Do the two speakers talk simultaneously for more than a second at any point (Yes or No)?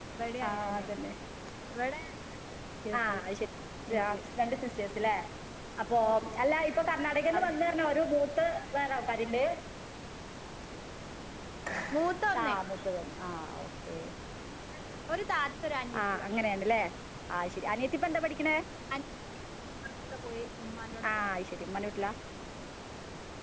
No